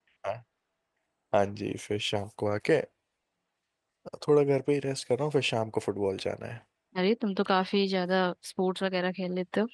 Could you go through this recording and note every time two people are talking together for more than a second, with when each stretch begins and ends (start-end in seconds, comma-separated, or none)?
none